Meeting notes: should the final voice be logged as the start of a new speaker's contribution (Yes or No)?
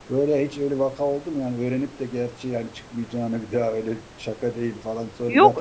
Yes